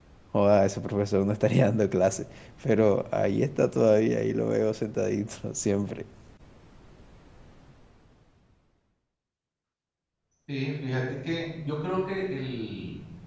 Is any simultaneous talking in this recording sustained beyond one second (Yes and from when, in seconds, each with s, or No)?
No